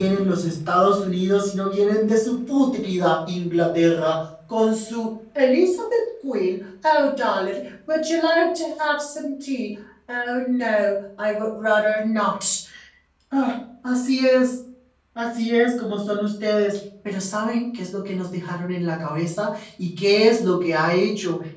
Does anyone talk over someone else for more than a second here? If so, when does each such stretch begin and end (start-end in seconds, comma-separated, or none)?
none